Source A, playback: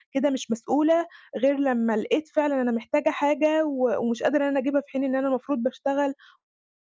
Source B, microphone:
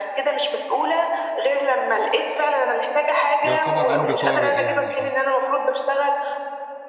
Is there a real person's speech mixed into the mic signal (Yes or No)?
Yes